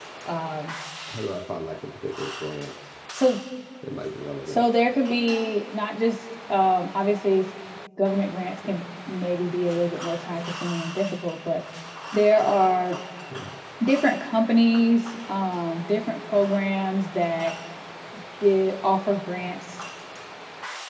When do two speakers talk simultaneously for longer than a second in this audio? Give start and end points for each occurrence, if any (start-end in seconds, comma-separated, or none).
none